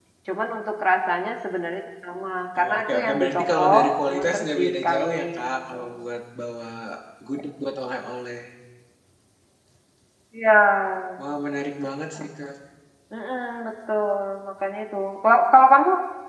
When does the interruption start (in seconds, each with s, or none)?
2.6 s